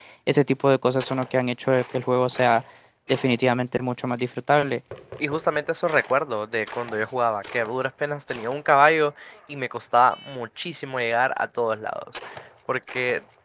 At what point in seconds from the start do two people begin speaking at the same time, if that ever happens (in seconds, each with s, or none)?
none